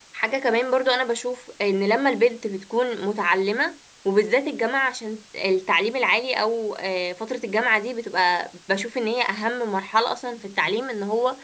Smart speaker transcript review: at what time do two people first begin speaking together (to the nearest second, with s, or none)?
none